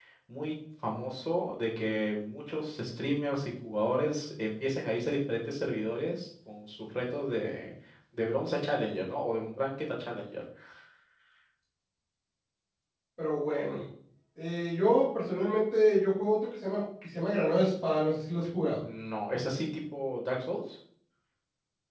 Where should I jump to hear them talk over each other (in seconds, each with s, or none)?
none